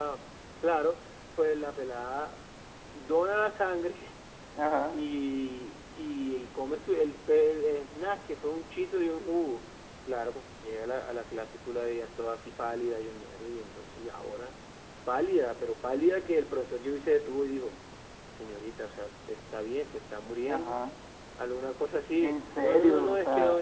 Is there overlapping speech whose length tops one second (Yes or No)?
Yes